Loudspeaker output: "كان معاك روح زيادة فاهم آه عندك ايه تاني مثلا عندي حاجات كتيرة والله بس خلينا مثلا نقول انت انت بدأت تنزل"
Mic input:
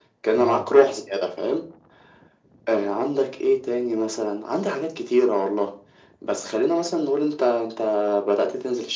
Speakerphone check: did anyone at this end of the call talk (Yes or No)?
Yes